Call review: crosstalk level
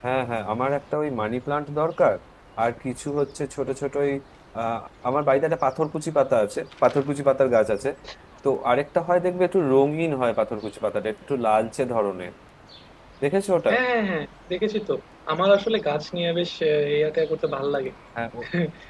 none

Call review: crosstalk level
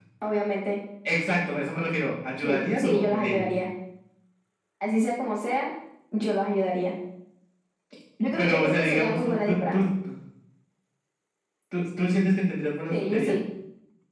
present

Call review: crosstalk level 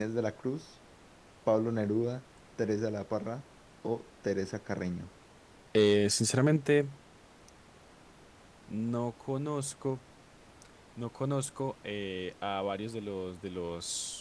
none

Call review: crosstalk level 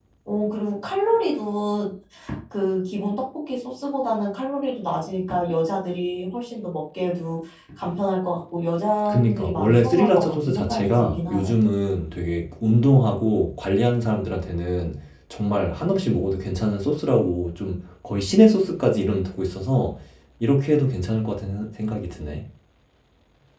present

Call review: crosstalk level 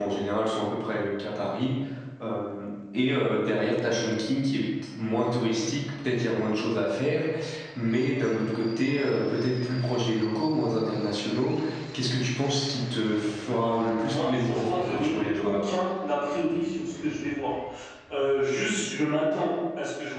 present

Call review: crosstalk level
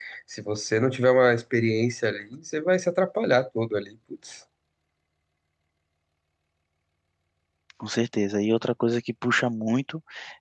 none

